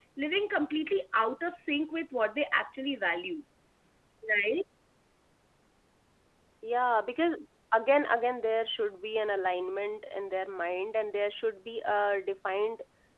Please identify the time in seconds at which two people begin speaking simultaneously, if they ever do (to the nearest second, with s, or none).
none